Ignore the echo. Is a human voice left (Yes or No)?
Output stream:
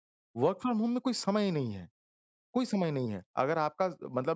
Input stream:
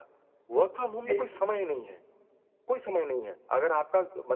Yes